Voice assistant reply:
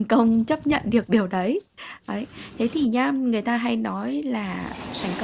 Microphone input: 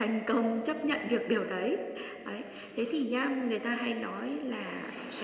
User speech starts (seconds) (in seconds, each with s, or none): none